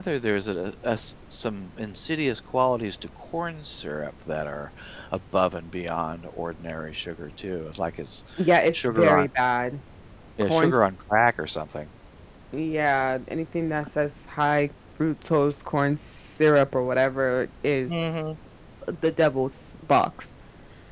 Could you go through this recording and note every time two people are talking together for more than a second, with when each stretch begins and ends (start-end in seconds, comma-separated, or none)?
none